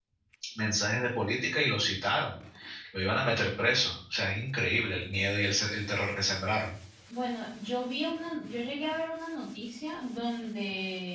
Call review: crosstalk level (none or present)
none